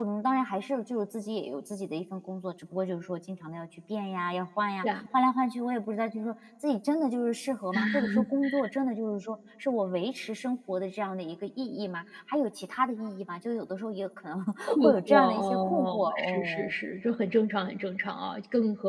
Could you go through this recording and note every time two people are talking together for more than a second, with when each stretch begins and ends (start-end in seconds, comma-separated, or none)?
14.8-16.8